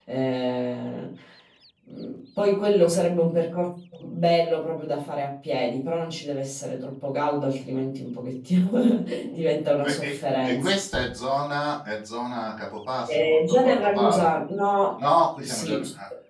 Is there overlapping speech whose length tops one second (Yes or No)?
Yes